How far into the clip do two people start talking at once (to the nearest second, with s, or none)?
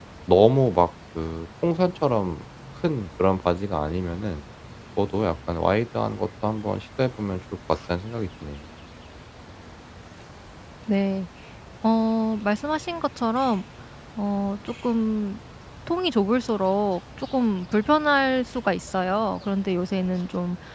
none